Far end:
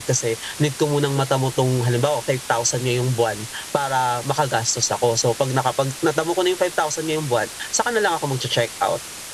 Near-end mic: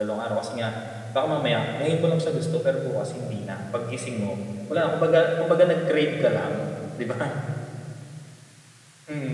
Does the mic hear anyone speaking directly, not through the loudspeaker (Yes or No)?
Yes